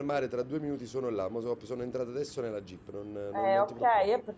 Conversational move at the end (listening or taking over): taking over